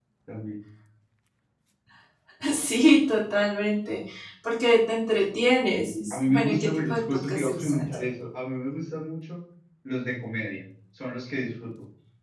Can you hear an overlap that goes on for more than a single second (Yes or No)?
Yes